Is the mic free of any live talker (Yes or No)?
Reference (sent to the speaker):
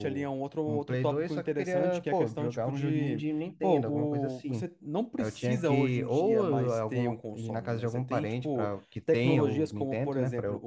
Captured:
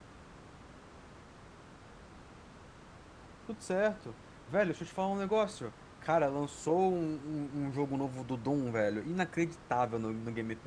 No